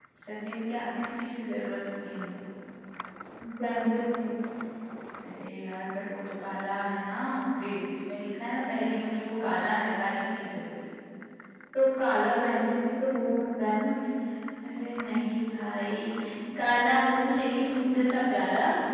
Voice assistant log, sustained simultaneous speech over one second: none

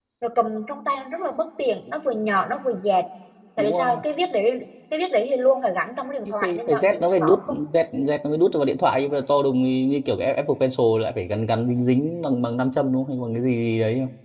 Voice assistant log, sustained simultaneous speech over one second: present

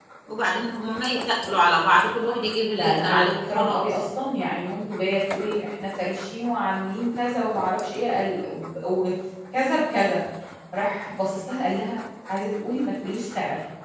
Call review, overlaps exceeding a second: present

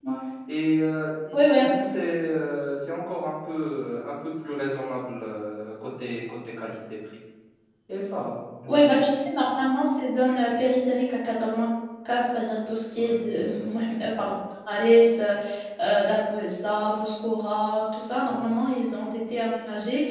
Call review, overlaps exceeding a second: none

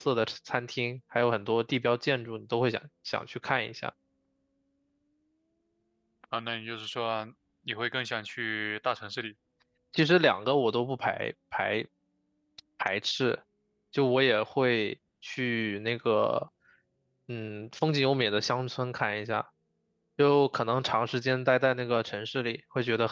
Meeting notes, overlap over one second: none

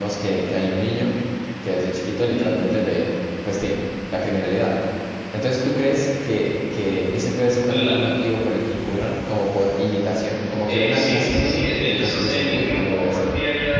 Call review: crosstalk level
present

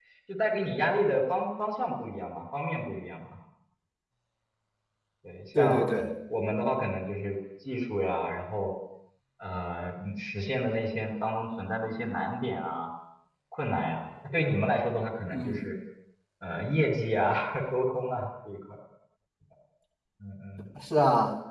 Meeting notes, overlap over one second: none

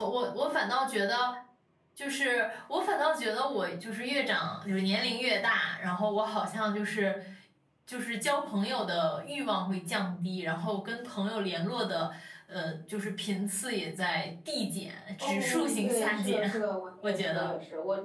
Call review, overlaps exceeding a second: present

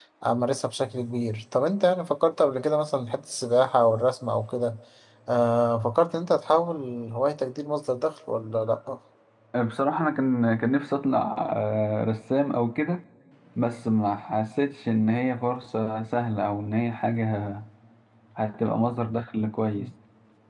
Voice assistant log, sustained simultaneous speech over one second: none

